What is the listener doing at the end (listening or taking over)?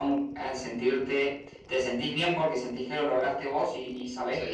listening